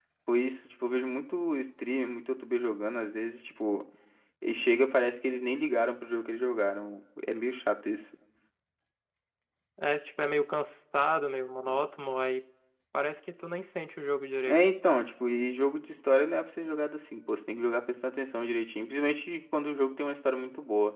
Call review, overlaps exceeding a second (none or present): none